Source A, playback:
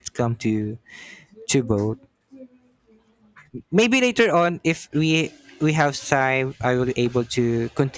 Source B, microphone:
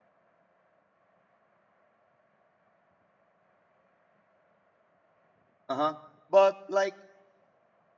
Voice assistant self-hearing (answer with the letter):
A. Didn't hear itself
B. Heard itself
A